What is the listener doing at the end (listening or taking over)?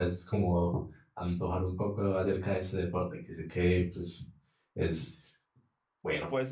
taking over